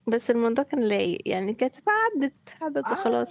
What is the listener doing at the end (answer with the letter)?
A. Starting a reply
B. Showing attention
A